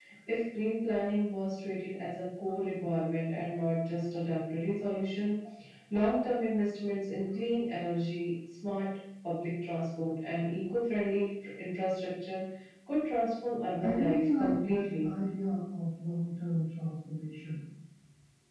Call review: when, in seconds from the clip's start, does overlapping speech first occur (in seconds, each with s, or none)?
13.8 s